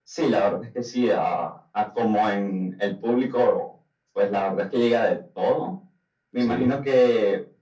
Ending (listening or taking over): listening